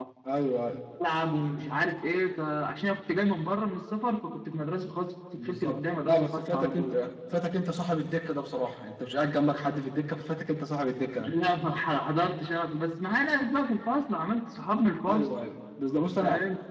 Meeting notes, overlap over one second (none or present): present